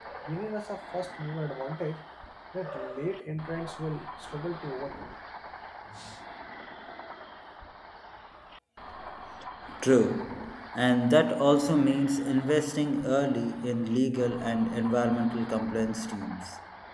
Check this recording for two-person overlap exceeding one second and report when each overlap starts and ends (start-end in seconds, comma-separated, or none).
none